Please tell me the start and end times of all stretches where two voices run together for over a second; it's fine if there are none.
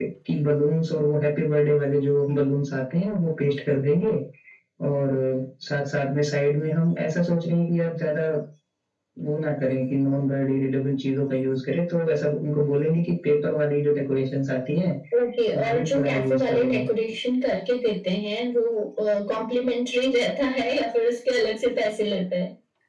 15.6-16.9

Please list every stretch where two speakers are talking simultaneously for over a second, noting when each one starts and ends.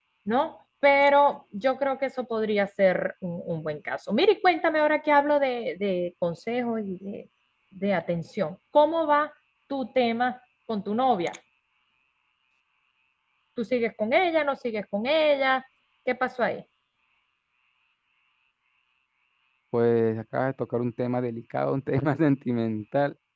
none

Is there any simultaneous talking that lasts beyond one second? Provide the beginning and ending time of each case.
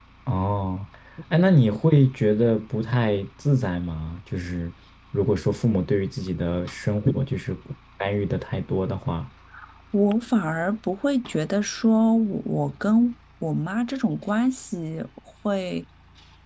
none

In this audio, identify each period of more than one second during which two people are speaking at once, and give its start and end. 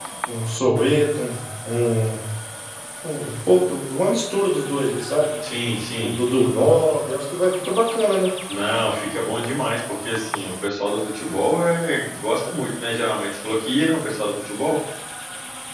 none

